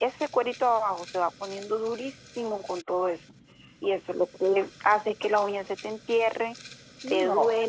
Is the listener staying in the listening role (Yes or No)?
Yes